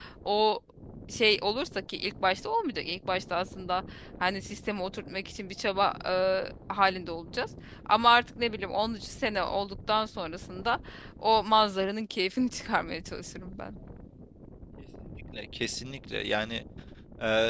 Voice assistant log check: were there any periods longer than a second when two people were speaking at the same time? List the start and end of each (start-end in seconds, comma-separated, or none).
none